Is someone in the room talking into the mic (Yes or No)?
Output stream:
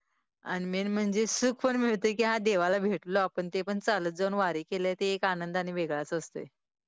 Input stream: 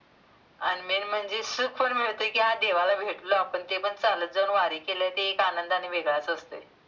No